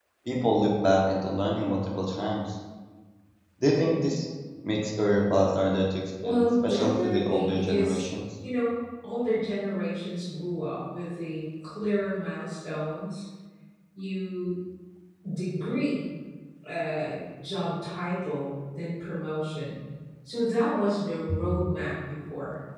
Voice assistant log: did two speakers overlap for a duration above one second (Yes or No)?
Yes